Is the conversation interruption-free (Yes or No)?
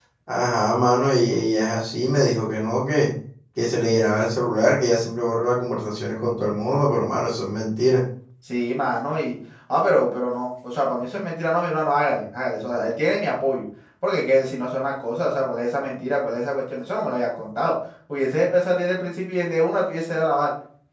Yes